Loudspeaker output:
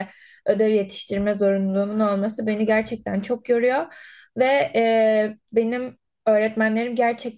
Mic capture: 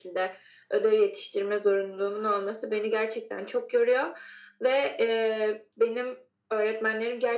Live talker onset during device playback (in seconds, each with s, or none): none